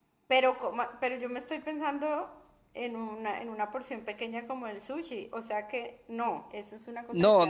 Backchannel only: No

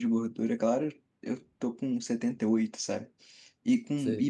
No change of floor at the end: Yes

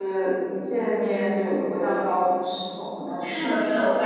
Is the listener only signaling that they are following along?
No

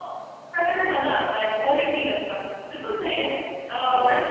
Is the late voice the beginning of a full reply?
No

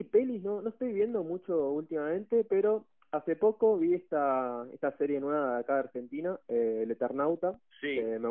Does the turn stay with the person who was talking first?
Yes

